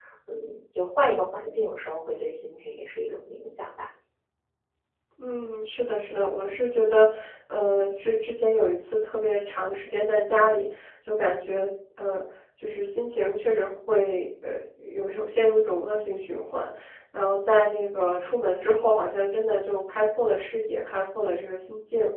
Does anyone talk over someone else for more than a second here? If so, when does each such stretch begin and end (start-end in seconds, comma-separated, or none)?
none